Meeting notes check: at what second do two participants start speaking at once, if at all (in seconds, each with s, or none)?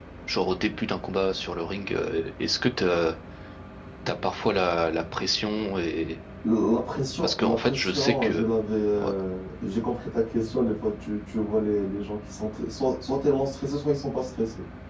7.2 s